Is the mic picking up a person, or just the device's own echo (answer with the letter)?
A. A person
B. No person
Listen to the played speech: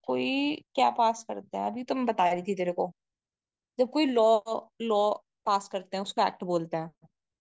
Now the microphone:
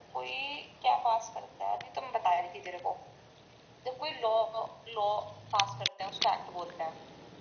B